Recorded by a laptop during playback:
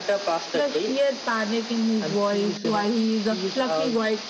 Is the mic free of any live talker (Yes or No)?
Yes